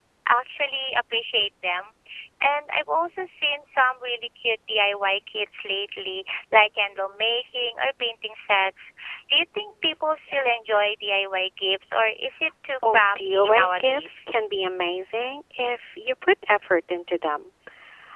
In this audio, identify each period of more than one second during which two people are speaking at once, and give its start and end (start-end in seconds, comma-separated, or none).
12.9-14.2